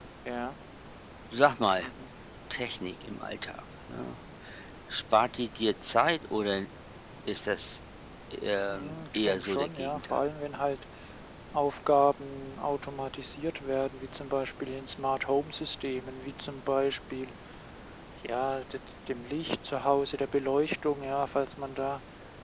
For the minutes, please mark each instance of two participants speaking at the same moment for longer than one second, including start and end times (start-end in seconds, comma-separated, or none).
8.7-10.2